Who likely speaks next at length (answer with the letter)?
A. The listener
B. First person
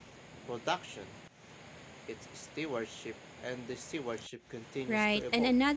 A